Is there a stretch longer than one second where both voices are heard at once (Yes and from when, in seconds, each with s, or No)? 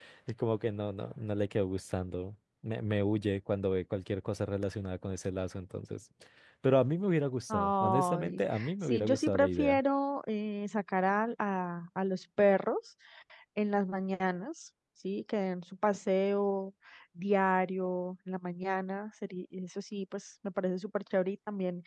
Yes, from 7.5 s